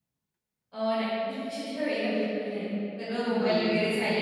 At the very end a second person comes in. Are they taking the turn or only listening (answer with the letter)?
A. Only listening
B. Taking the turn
A